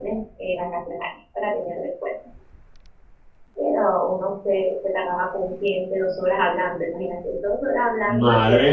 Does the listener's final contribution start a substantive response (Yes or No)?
Yes